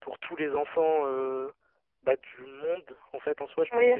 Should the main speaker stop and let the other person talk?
Yes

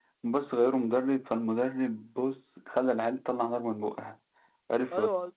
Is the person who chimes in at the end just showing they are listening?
No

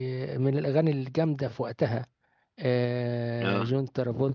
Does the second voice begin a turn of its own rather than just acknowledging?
No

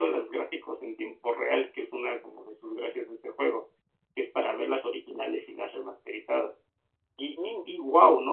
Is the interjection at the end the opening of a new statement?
No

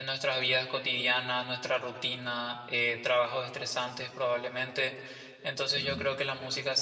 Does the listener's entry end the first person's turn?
No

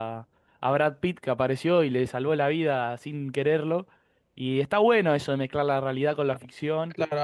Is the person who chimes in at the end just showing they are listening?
No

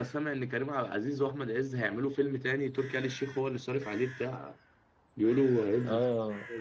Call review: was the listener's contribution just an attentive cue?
No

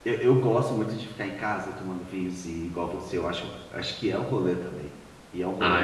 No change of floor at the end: No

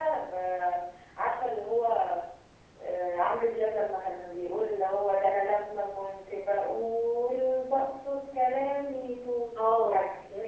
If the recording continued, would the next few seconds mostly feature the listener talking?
Yes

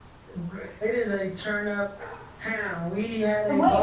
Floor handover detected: No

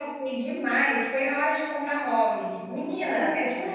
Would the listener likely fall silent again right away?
Yes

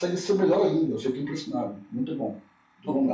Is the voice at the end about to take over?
Yes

